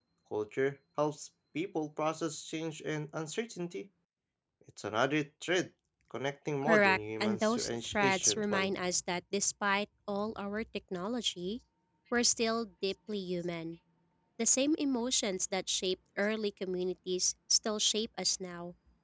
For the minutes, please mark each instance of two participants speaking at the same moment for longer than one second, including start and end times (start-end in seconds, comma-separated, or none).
6.6-8.7